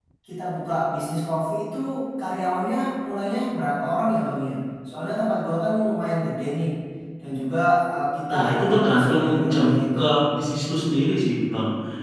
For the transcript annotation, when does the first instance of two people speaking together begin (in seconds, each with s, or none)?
8.3 s